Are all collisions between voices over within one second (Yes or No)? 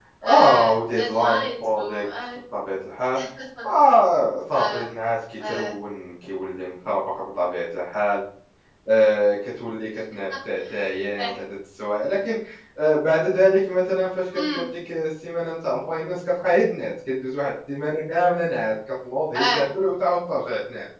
No